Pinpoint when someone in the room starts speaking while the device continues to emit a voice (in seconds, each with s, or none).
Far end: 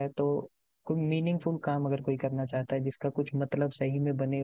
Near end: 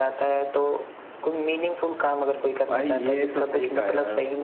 2.7 s